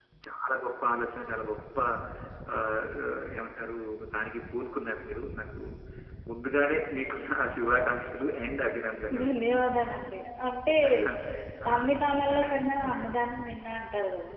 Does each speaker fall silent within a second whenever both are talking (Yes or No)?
Yes